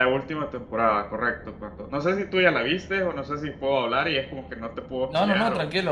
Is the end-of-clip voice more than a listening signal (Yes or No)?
Yes